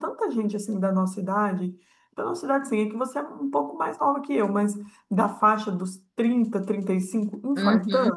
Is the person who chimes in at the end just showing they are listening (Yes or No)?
No